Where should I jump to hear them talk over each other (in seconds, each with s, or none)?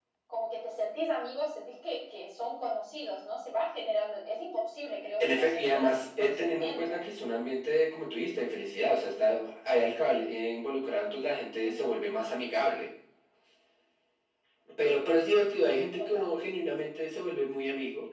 5.2 s